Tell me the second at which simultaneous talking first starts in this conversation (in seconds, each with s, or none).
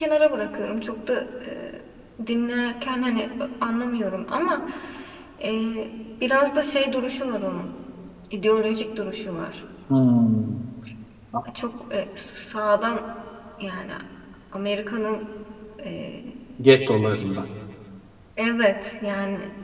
none